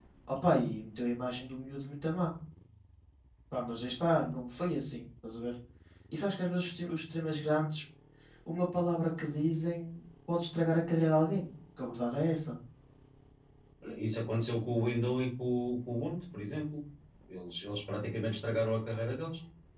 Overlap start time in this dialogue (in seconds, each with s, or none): none